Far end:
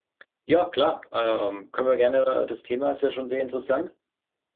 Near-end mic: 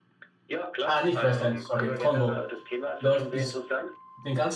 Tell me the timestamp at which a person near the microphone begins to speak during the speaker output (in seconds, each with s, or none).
0.8 s